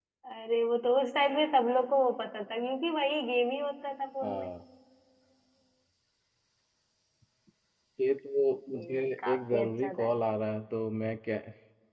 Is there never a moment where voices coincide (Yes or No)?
No